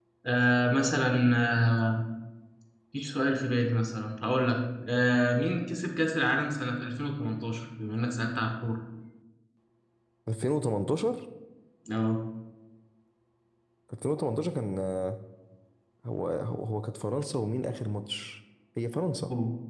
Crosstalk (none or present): none